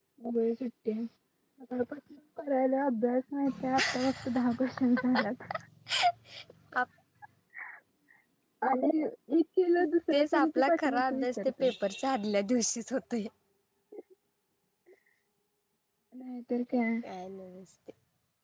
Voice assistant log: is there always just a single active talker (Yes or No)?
No